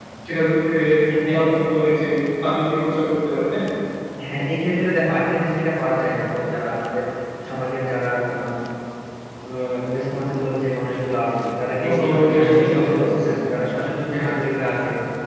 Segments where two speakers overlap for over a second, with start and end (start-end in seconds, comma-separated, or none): 11.8-13.2